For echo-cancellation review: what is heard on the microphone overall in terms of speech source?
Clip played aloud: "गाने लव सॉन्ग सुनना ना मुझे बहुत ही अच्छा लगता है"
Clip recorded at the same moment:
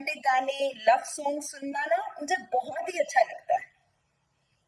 echo only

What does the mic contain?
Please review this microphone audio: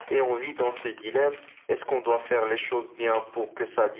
echo only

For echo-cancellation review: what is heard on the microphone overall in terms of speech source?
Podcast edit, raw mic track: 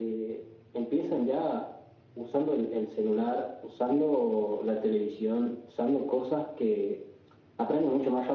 echo only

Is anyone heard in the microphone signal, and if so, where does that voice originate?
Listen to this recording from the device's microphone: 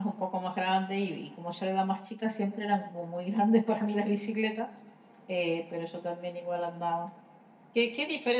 echo only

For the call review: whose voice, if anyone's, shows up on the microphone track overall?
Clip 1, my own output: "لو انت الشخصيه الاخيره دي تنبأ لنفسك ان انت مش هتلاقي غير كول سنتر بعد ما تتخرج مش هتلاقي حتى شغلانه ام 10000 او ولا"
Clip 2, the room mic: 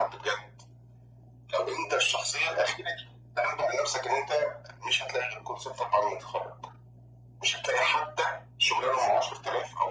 echo only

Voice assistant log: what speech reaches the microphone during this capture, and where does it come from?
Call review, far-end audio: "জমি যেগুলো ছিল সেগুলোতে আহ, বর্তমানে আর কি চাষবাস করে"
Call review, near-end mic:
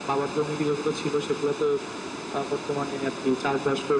echo only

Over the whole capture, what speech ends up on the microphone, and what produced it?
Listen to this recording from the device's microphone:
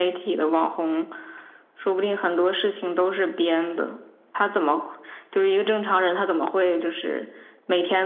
echo only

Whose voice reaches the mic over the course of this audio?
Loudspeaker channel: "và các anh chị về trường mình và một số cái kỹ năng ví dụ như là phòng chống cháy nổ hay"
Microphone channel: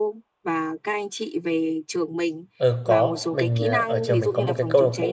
both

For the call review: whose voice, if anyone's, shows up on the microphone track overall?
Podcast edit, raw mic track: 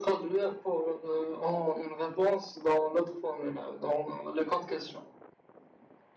echo only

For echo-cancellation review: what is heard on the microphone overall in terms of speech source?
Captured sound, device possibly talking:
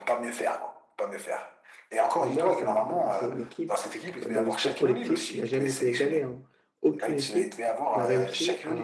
both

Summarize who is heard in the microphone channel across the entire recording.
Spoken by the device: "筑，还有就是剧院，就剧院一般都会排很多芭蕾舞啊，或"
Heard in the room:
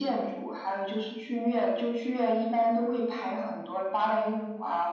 echo only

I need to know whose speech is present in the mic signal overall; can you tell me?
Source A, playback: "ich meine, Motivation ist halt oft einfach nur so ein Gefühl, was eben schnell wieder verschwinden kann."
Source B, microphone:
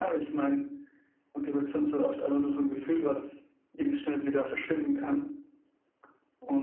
echo only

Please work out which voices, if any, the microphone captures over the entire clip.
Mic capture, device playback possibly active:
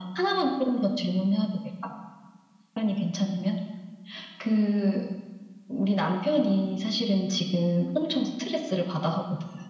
echo only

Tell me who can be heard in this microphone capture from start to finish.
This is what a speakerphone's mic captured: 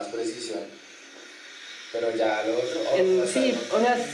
both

